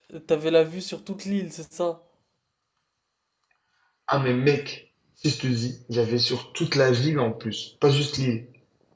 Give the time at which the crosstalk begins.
none

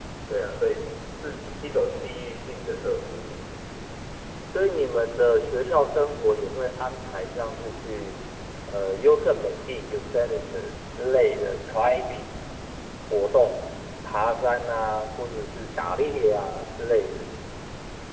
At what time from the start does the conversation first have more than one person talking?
none

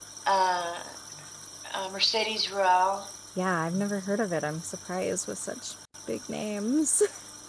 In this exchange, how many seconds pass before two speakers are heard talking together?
none

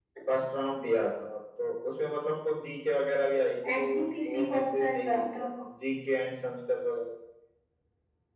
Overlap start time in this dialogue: 3.6 s

